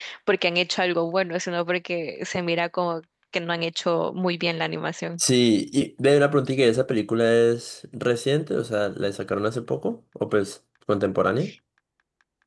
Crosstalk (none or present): none